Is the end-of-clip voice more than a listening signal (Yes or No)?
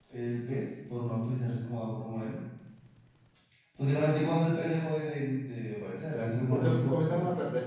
Yes